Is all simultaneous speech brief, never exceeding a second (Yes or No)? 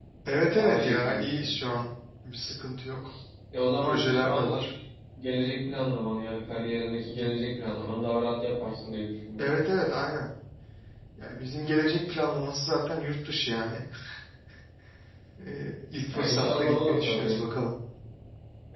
No